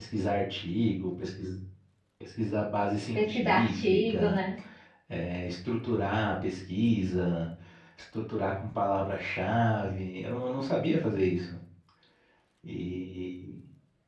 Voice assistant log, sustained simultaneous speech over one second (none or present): present